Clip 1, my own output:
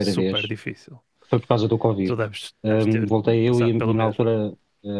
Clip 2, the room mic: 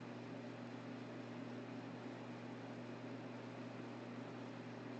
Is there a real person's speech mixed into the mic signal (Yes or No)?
No